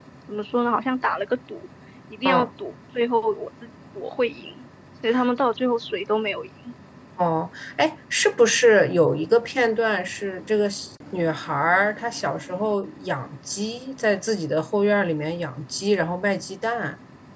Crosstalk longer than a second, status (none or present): none